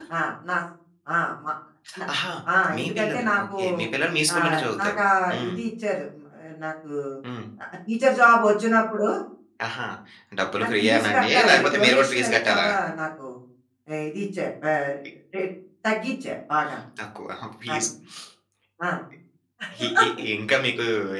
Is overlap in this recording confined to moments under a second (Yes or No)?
No